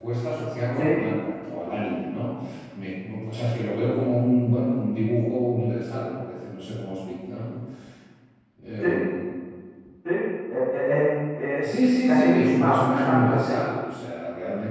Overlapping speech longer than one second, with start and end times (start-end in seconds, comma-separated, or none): 12.1-13.6